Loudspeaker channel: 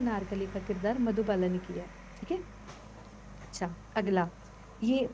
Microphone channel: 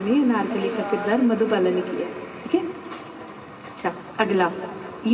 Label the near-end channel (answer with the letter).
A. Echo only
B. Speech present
B